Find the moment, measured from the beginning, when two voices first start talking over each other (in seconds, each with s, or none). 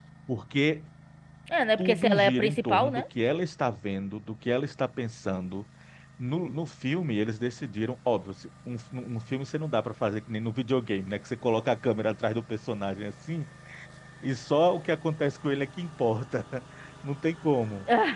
1.8 s